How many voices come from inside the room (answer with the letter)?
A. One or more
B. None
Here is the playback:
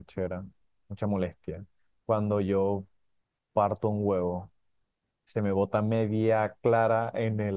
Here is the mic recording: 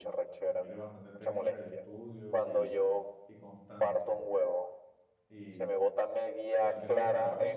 A